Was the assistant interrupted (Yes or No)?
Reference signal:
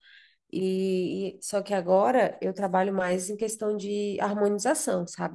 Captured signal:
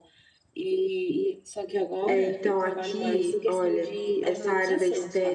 Yes